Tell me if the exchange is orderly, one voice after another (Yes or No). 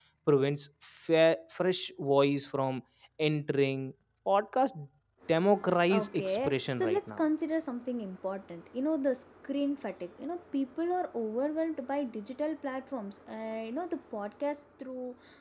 No